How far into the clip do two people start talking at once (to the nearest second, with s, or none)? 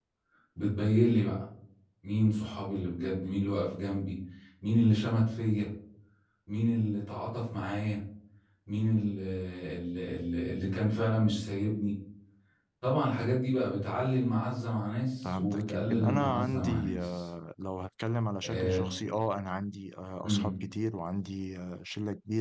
15 s